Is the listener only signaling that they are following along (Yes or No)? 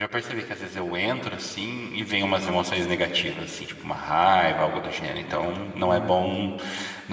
Yes